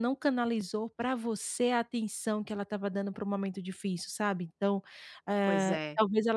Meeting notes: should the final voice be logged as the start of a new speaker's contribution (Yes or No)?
No